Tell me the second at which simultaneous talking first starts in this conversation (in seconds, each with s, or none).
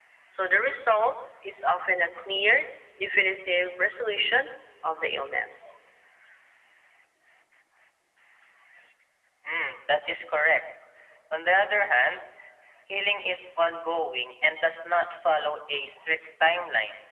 none